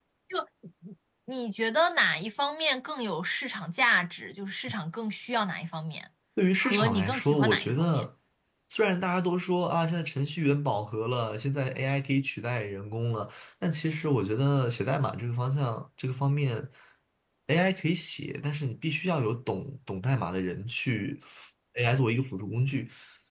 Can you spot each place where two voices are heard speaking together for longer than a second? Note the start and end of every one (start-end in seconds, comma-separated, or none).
6.6-8.0